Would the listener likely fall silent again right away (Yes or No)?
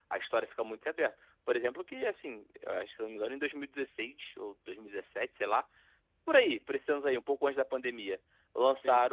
Yes